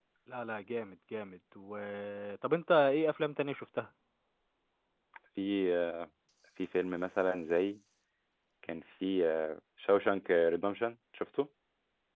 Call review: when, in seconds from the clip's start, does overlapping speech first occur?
none

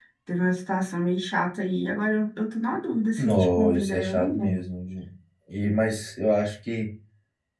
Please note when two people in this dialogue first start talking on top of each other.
3.2 s

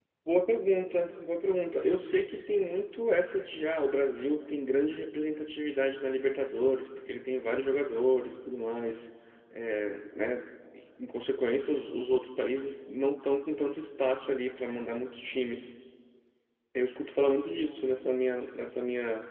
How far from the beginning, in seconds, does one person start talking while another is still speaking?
none

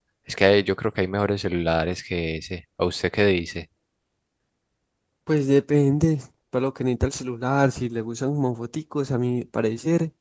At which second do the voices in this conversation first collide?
none

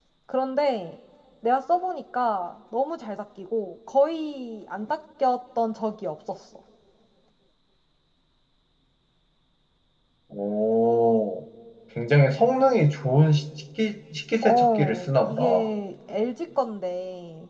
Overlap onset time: 14.4 s

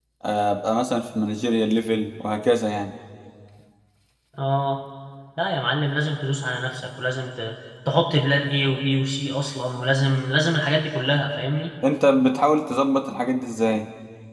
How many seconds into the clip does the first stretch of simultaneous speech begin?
none

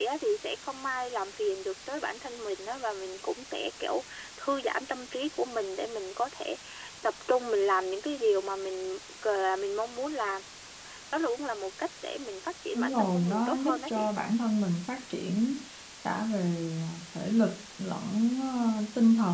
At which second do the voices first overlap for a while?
12.8 s

